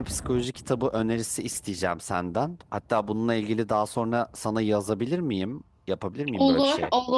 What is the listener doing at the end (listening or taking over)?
taking over